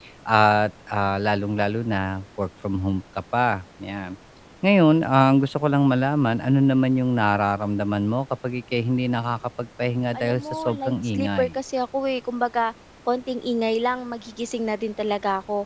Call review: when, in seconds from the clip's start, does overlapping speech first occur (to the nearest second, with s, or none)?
10 s